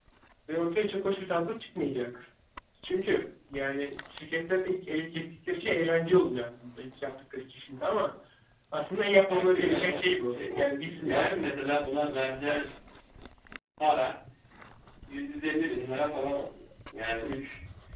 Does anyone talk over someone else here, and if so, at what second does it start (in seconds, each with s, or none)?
9.3 s